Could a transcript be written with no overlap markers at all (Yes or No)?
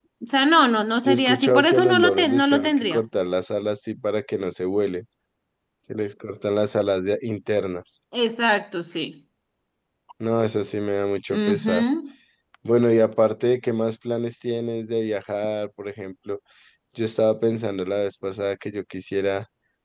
No